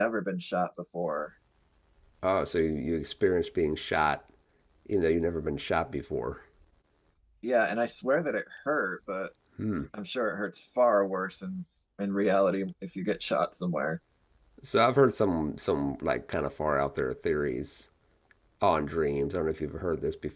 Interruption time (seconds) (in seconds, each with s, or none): none